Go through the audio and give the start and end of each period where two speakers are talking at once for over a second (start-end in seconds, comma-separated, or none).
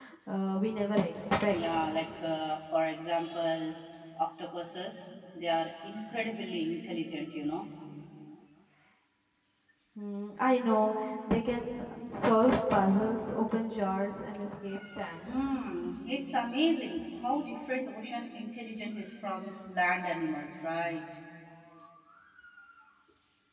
none